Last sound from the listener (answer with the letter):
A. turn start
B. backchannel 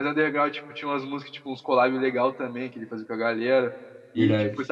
B